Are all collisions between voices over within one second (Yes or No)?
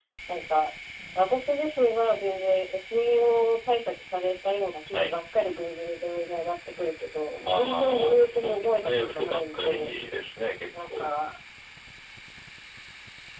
No